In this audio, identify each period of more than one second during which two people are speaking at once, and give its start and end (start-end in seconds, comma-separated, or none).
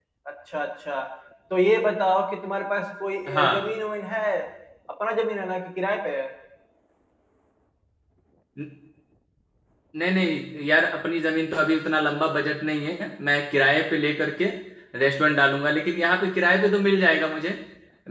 none